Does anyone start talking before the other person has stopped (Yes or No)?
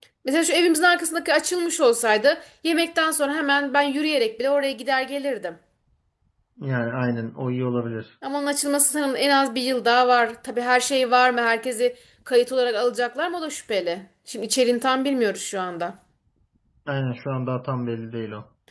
No